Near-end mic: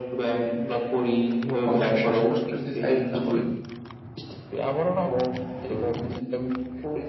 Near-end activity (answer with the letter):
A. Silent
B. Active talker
B